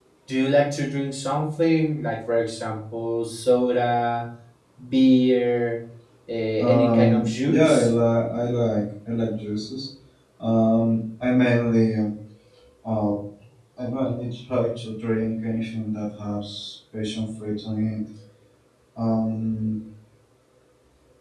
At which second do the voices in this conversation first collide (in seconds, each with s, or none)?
6.6 s